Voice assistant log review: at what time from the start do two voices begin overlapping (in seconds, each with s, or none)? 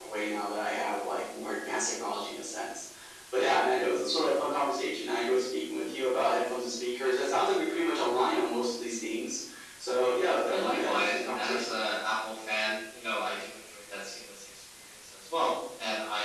10.5 s